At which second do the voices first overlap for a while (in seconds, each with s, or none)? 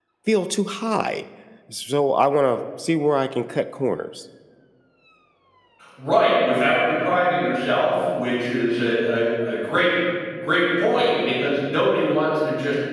none